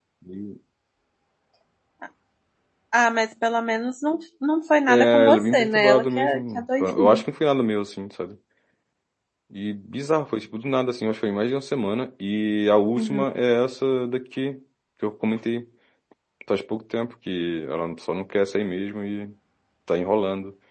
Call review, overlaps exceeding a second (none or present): present